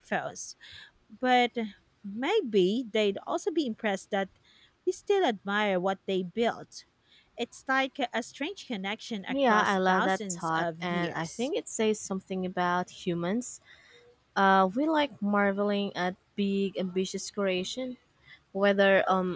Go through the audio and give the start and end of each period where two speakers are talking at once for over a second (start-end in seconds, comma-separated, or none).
9.3-11.5